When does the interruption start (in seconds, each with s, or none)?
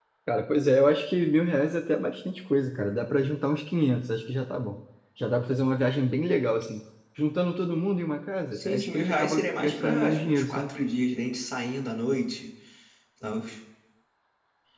8.6 s